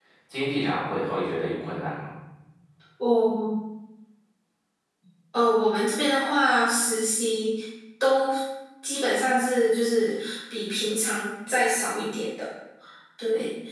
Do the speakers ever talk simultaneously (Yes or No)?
No